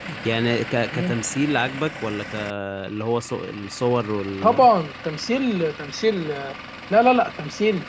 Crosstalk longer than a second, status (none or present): none